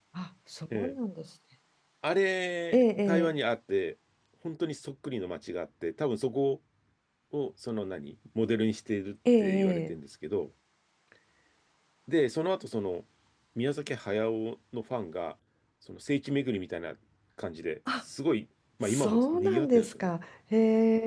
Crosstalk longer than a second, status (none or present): present